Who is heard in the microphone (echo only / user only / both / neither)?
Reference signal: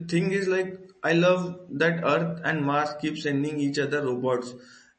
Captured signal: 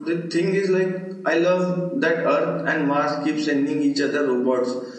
echo only